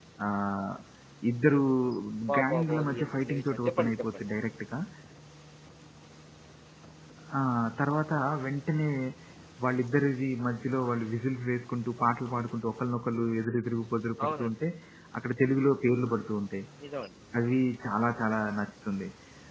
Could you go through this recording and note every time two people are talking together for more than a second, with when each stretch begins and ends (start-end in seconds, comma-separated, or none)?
2.4-4.2